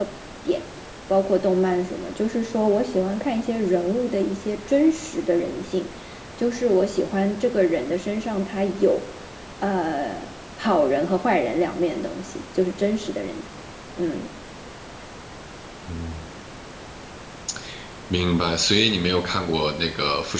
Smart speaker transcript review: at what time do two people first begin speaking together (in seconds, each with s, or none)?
none